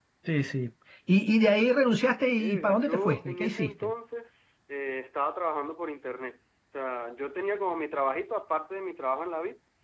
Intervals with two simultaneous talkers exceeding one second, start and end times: 2.4-3.9

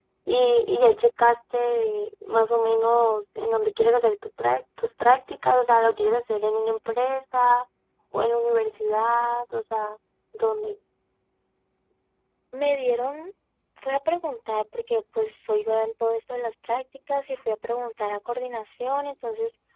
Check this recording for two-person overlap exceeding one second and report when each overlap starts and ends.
none

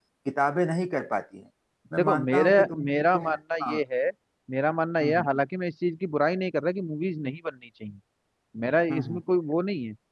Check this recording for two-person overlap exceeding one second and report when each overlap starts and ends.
2.0-3.8

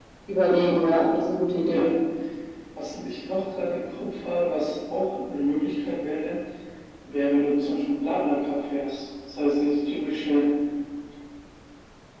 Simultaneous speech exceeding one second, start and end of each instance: none

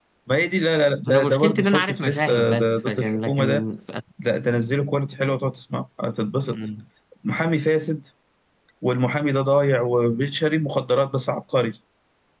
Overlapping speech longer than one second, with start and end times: 1.1-3.6

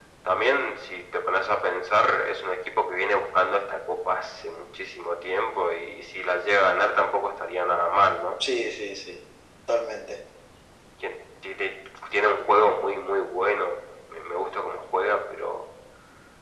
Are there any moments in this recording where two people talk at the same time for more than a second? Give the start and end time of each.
none

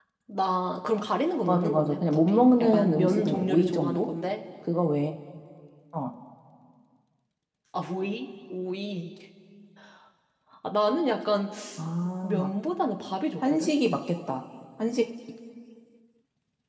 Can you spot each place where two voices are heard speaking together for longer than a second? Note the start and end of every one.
1.5-4.1

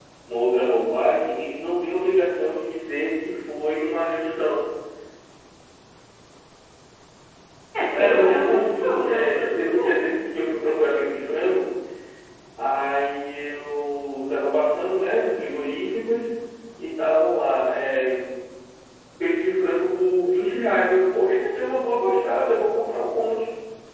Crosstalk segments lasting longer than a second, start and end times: 7.9-10.2

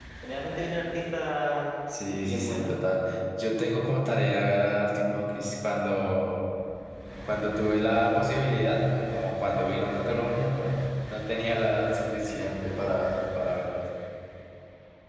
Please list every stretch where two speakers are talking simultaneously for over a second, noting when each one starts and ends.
none

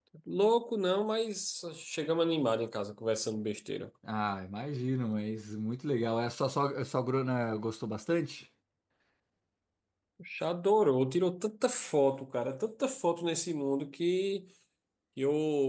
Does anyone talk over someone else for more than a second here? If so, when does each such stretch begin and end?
none

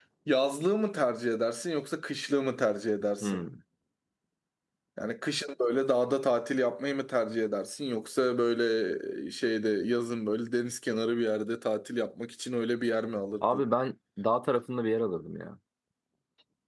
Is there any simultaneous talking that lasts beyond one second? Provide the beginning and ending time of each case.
none

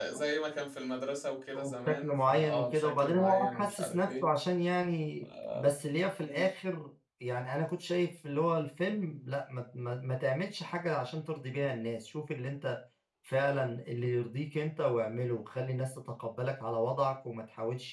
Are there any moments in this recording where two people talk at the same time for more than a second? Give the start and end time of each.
1.6-4.2

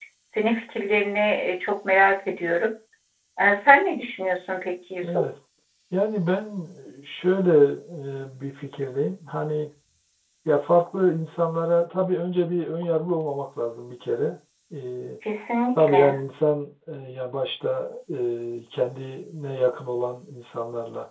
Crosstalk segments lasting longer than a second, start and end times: none

